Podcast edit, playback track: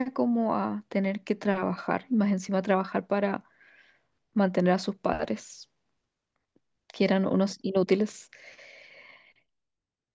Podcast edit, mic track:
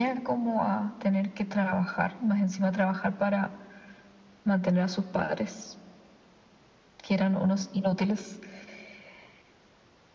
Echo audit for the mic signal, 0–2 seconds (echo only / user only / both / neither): echo only